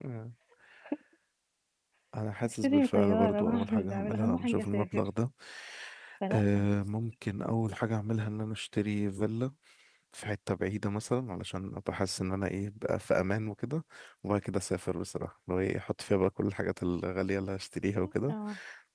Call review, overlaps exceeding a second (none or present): present